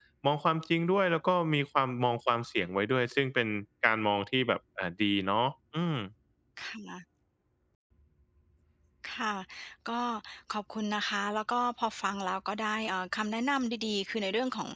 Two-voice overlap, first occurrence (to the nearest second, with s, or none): none